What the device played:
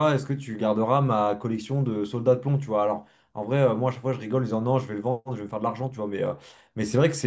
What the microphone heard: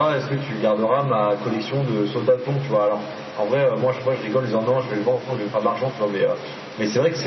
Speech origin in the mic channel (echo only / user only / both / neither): echo only